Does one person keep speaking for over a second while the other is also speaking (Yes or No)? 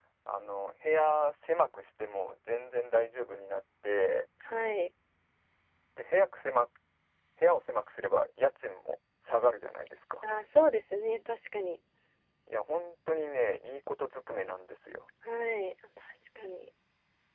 No